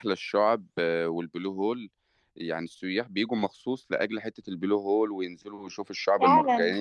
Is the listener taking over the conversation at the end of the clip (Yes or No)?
No